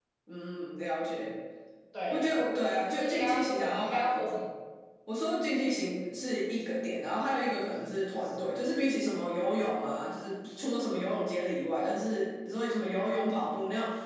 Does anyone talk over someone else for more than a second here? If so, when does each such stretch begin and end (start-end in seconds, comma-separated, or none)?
3.0-4.2